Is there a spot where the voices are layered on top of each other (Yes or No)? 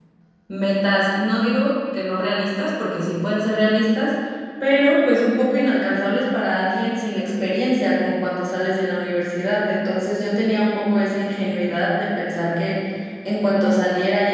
No